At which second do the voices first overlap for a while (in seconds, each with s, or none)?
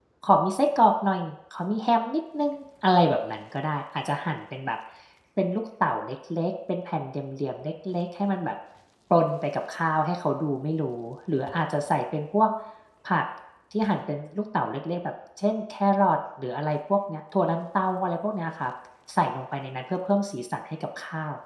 none